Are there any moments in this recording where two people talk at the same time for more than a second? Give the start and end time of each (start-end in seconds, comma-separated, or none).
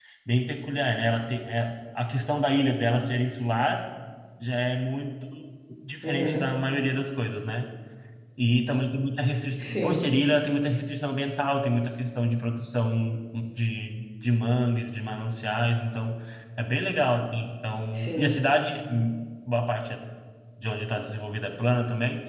none